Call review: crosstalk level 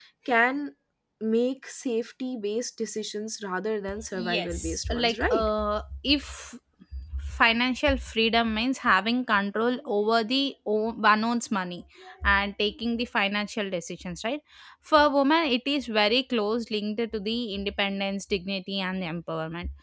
present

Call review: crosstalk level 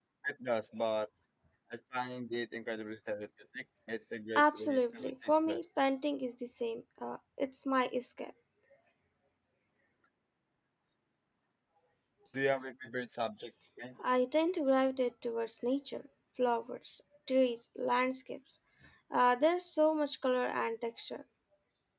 present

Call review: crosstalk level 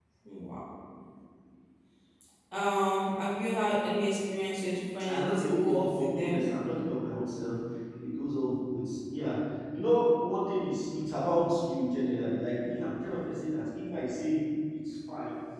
present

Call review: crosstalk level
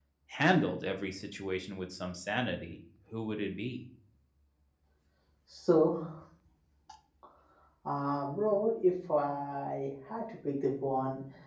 none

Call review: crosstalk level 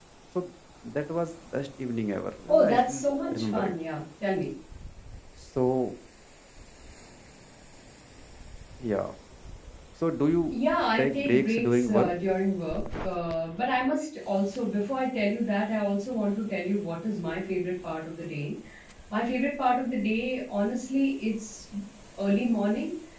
present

